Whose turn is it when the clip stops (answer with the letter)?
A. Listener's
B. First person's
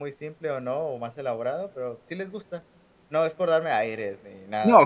A